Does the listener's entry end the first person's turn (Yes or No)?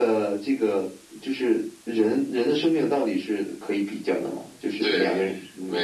Yes